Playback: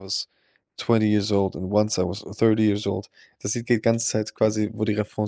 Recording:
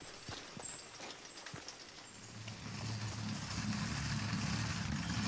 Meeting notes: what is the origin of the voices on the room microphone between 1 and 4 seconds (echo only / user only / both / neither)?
neither